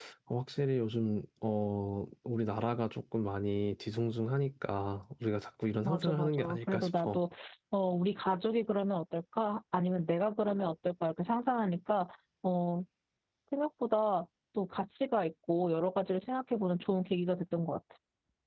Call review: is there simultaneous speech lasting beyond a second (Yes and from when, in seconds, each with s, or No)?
Yes, from 5.8 s